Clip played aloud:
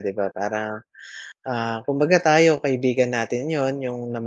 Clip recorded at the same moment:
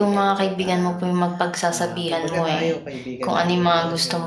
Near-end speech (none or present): present